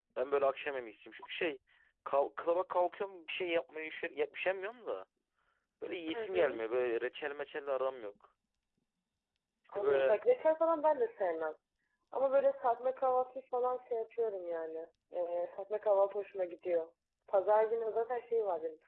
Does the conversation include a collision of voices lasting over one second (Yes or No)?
No